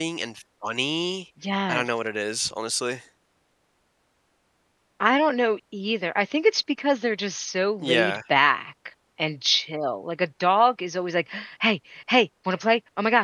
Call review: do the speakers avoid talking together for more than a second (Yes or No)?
Yes